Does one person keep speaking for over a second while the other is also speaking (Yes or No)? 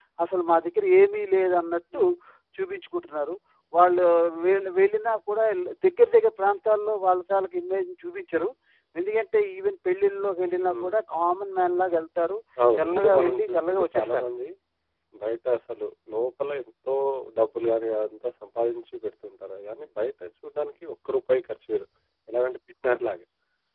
Yes